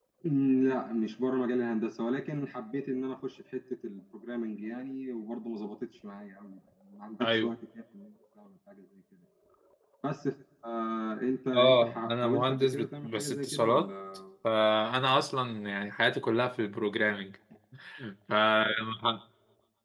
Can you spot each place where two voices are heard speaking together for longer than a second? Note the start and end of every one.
11.5-13.9

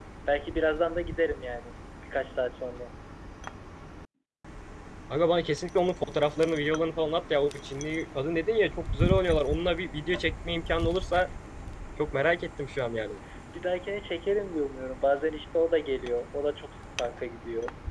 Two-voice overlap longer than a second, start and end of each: none

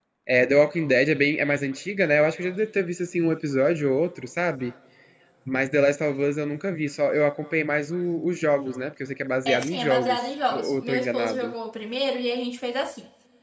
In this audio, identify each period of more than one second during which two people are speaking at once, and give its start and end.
9.4-11.5

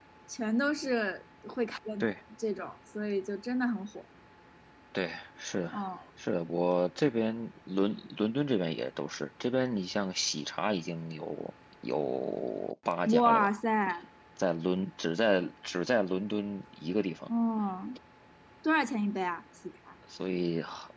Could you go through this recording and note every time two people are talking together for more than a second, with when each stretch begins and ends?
none

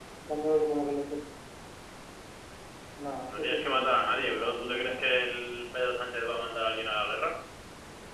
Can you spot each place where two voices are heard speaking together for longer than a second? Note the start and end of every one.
3.3-5.2

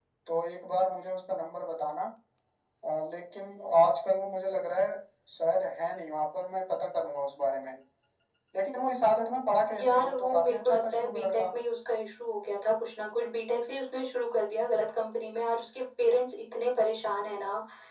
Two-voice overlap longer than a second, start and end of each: 9.8-11.4

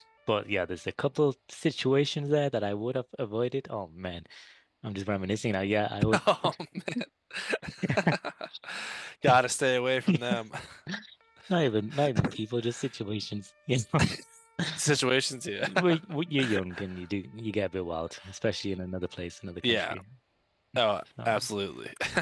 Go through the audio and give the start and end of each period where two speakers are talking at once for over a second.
none

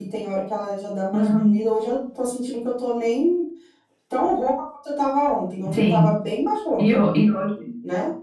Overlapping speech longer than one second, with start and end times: none

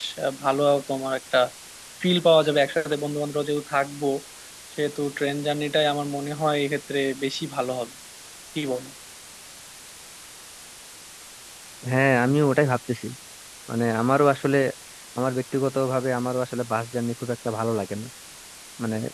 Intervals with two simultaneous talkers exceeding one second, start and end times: none

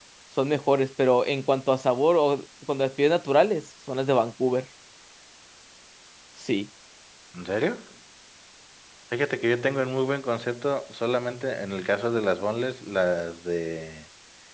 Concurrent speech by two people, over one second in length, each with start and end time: none

